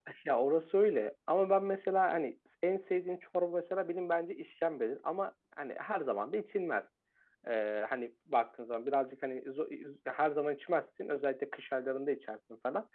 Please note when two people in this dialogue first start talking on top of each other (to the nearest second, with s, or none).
none